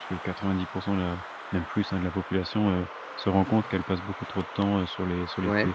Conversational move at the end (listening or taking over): listening